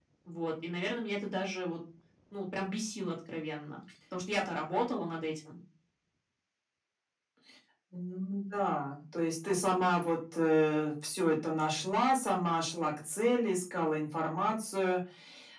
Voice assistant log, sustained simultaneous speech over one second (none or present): none